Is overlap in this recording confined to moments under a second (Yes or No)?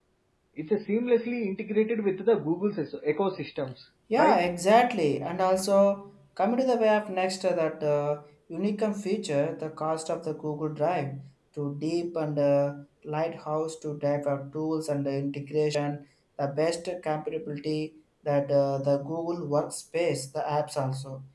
Yes